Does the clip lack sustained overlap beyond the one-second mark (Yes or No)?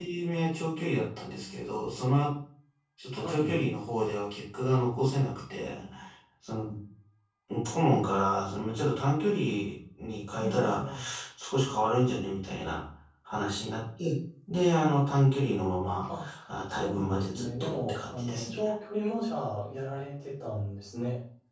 No